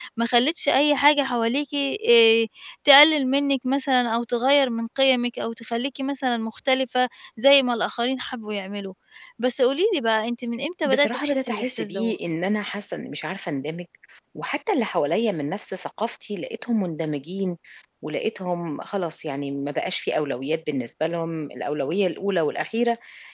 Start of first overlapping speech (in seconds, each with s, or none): 10.8 s